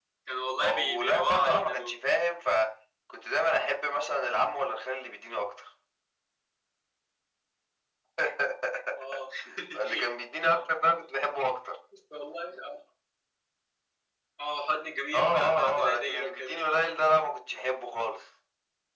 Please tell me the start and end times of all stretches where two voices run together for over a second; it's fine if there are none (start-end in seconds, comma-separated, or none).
0.6-2.0, 15.1-16.6